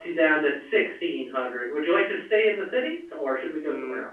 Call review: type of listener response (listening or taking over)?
taking over